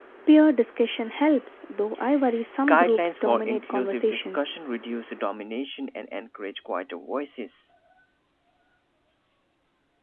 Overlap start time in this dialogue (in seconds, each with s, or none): 2.6 s